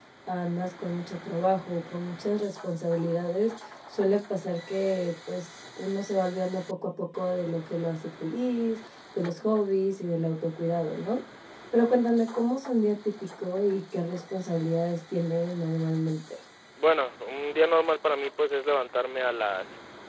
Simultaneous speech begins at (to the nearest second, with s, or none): none